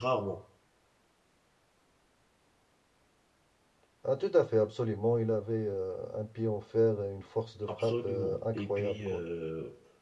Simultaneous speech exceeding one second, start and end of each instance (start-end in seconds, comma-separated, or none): 7.7-9.2